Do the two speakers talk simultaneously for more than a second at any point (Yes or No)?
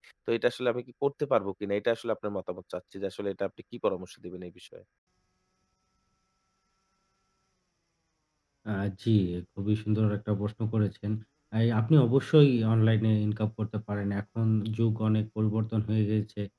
No